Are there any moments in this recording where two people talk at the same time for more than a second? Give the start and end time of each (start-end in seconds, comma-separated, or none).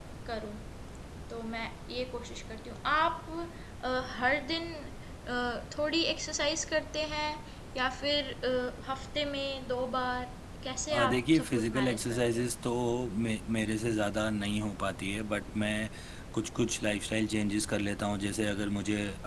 10.9-12.5